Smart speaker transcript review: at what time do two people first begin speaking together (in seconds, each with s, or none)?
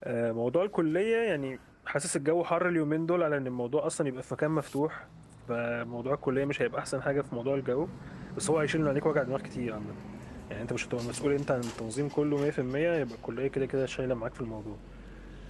none